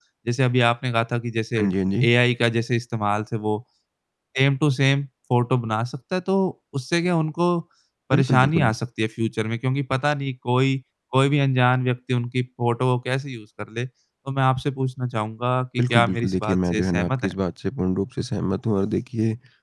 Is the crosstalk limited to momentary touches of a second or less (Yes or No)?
No